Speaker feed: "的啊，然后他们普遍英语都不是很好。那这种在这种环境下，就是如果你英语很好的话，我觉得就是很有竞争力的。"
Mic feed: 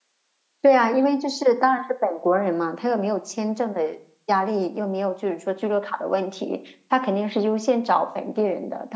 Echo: none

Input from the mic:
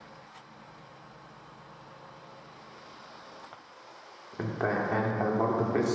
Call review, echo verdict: none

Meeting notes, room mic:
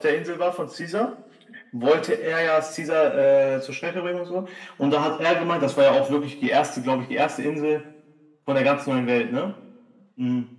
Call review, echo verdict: present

